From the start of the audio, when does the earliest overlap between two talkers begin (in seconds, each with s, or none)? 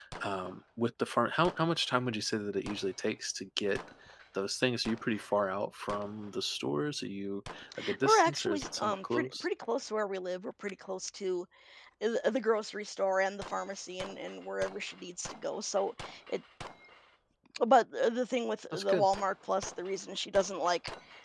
8.0 s